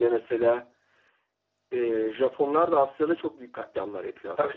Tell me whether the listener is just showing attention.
No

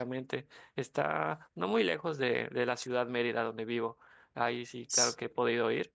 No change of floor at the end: Yes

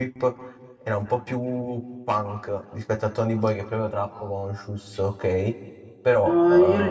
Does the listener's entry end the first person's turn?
Yes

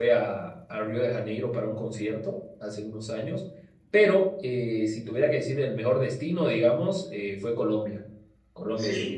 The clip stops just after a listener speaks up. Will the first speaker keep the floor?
No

